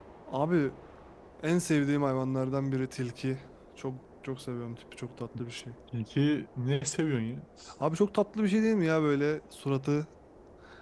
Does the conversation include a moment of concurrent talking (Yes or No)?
No